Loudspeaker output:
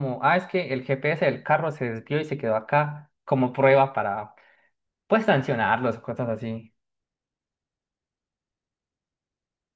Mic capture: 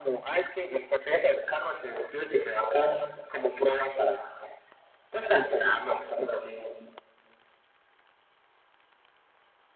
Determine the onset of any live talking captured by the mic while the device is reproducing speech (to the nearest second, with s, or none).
none